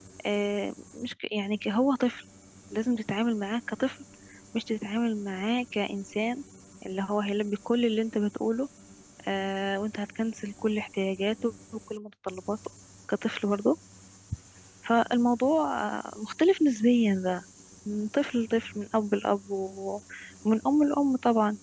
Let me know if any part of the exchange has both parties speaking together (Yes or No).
No